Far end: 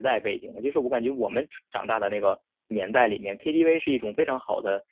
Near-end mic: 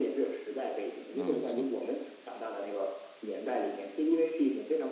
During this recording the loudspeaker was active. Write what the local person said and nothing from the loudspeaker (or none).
那没错。